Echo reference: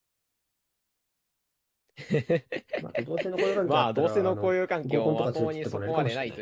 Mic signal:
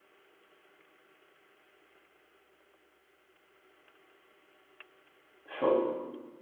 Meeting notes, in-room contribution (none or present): present